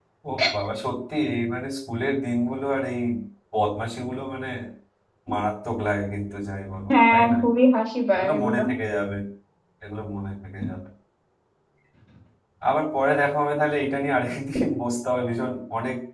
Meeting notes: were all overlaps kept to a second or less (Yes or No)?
Yes